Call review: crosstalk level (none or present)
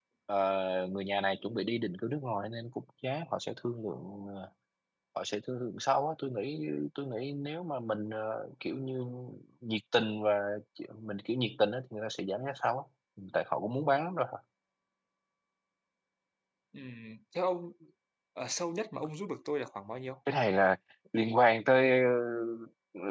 none